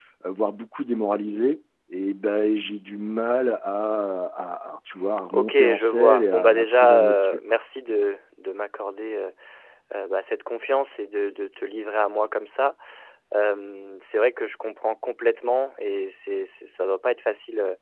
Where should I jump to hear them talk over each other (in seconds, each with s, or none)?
5.3 s